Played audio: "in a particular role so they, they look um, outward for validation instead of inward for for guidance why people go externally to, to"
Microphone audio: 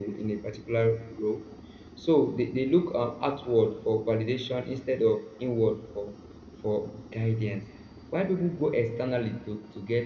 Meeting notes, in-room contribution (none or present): none